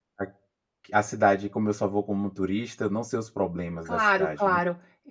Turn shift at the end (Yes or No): Yes